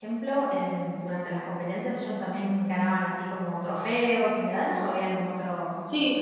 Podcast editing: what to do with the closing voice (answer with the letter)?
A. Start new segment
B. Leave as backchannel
A